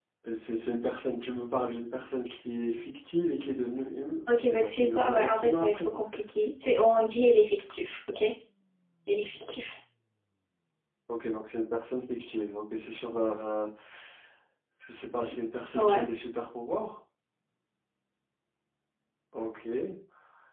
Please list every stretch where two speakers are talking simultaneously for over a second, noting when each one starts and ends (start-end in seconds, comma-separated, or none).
4.6-5.9